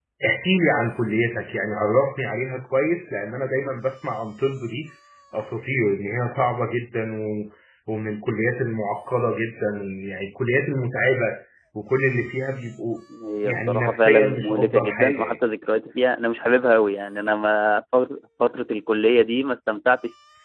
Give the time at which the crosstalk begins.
13 s

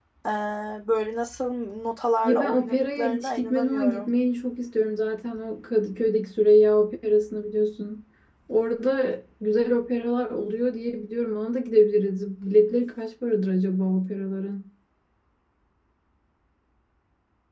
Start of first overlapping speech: 2 s

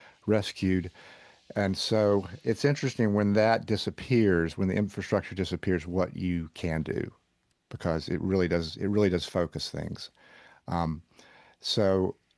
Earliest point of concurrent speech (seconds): none

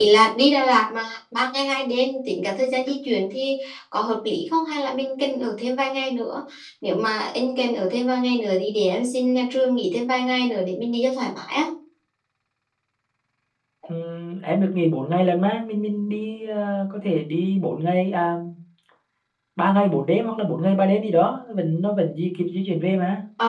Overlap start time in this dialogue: none

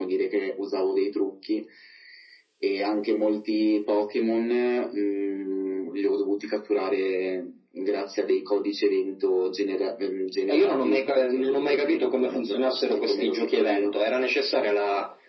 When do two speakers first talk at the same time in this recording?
10 s

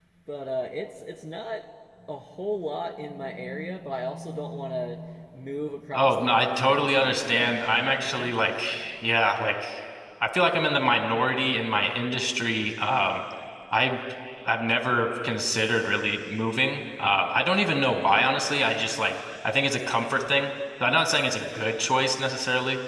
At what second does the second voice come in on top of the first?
6 s

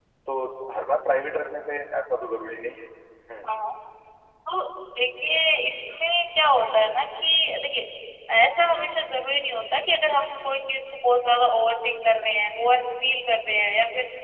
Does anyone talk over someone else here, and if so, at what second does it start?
none

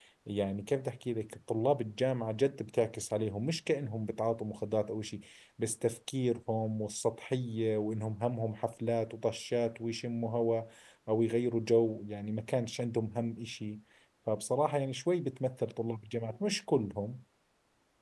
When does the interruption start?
none

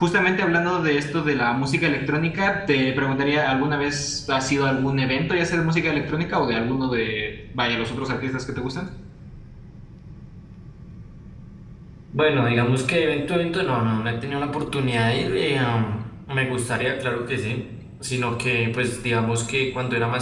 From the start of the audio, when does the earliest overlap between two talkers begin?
none

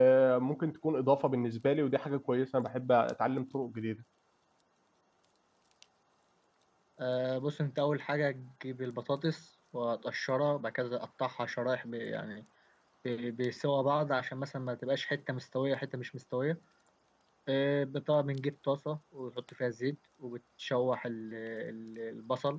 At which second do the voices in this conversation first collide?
none

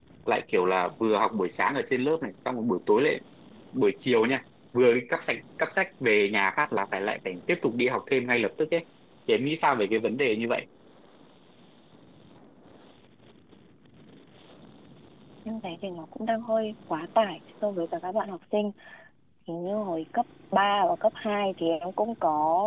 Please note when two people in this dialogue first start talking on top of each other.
none

